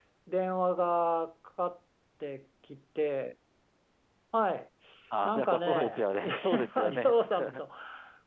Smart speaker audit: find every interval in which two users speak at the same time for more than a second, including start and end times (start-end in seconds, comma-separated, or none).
5.2-7.1